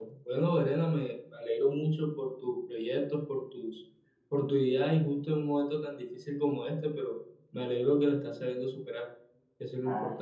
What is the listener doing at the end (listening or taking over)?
taking over